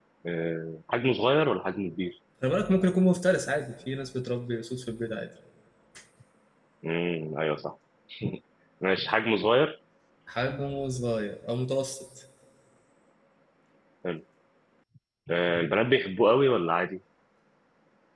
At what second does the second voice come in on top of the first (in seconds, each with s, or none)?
none